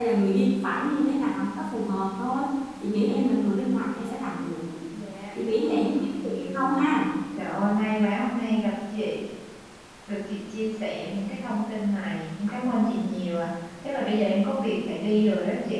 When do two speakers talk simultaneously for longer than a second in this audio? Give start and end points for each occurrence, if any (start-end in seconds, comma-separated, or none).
5.4-6.8